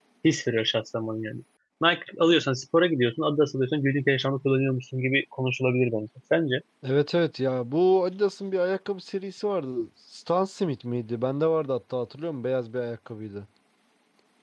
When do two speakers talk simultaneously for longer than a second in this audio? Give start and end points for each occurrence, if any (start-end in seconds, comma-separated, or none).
none